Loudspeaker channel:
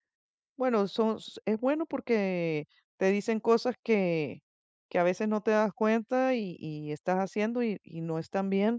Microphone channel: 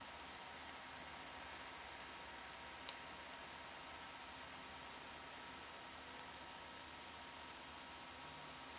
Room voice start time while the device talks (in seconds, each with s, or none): none